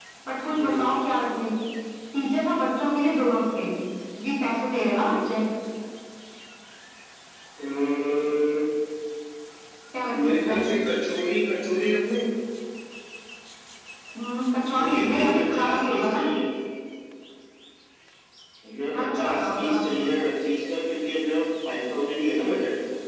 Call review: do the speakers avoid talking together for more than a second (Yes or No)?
No